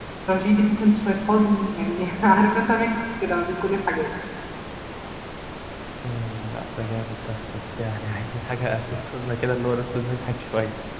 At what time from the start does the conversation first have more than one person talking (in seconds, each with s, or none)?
none